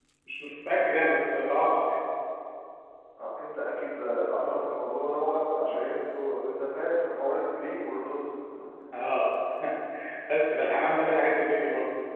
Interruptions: none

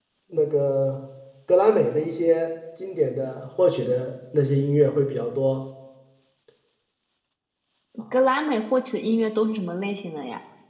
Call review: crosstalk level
none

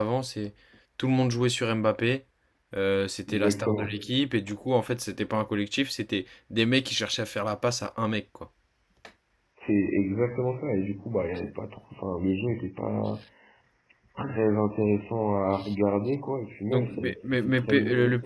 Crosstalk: present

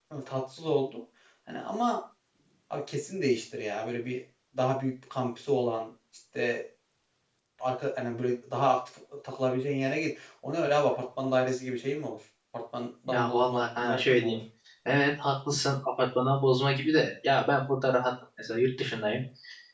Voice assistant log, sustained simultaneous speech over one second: present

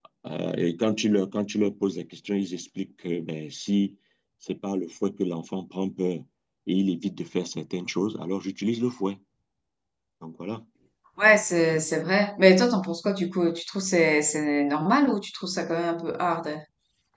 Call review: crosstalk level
none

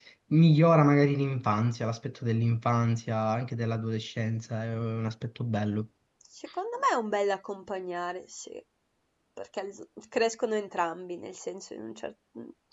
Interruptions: none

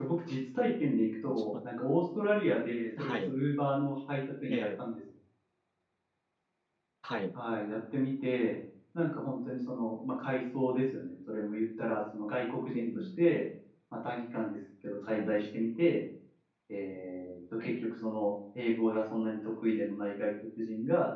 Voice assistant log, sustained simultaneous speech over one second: none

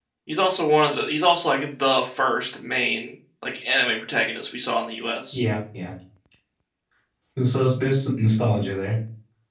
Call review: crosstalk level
none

